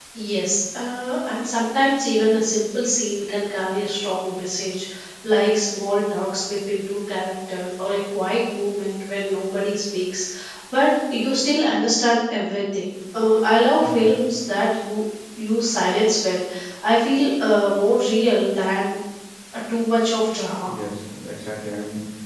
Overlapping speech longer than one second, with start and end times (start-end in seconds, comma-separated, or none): none